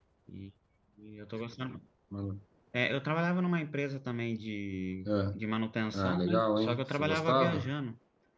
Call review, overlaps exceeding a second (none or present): present